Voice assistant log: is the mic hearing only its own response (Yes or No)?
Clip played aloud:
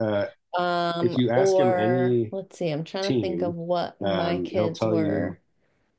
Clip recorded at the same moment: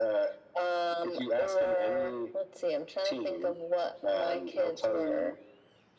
Yes